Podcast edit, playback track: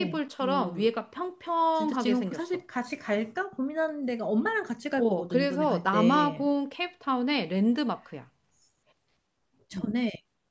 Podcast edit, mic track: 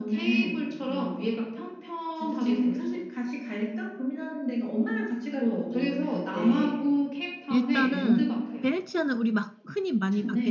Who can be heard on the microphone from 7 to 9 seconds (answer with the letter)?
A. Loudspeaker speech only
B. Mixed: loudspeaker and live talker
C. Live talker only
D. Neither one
B